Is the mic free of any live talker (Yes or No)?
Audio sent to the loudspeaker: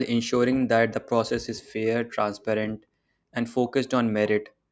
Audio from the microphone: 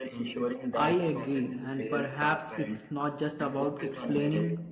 No